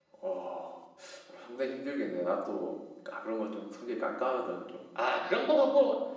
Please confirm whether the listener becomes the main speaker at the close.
Yes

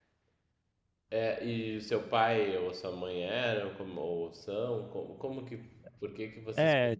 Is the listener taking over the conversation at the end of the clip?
Yes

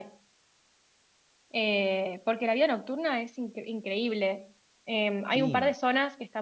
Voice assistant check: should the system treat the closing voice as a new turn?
No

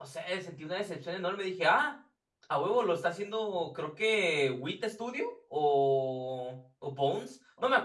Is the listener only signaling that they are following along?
Yes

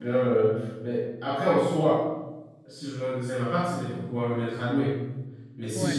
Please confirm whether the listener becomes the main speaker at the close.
No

